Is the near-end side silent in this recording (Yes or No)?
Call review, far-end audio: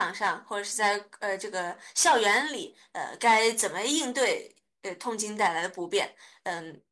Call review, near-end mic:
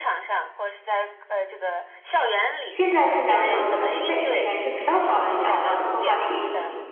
No